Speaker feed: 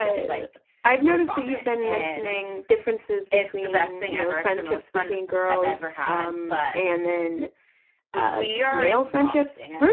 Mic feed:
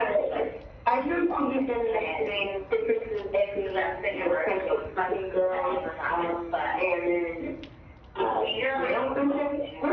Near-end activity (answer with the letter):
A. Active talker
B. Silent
B